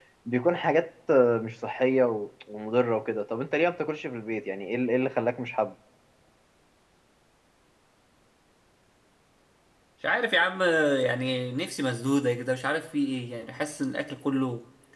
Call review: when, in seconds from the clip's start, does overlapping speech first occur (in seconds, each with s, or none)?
none